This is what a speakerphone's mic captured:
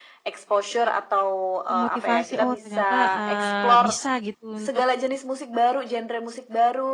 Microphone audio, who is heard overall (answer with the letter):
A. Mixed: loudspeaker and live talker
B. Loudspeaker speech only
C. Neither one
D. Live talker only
A